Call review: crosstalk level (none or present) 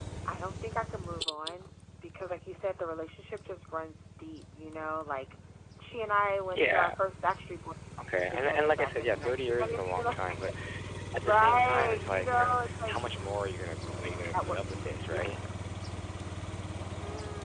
present